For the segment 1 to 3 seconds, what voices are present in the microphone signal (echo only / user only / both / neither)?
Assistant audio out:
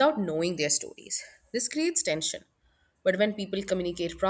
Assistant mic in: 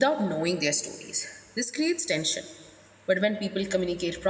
echo only